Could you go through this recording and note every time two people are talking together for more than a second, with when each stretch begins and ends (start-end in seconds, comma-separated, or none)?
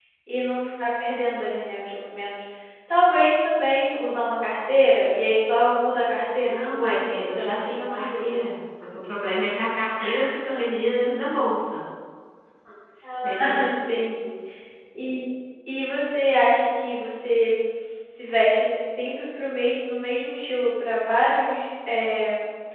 6.5-8.4